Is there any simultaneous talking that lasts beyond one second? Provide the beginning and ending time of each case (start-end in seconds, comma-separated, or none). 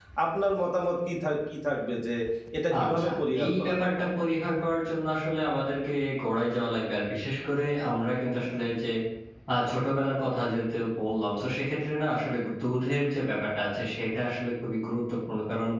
none